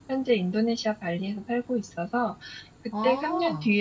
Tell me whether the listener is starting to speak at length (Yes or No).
No